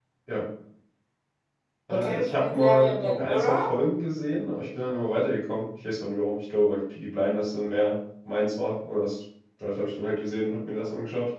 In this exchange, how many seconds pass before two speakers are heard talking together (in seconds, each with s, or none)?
1.9 s